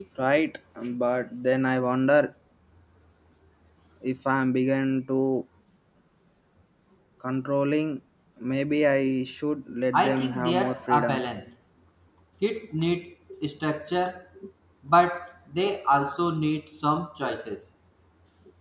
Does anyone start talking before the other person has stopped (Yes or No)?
Yes